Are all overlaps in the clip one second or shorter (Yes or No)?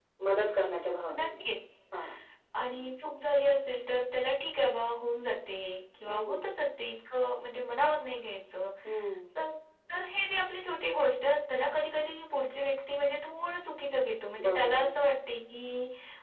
Yes